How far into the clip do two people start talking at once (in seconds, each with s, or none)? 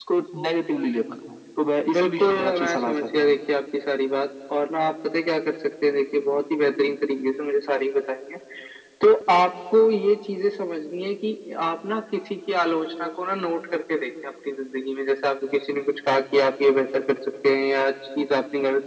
1.9 s